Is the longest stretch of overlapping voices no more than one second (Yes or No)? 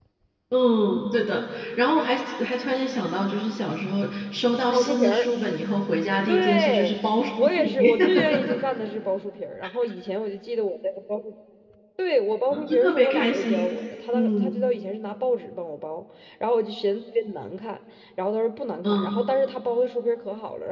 No